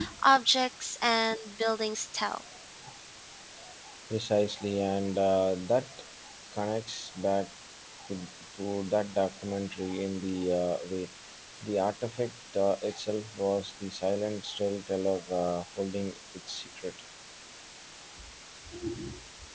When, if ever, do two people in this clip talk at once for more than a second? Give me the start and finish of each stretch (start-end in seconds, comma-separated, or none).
none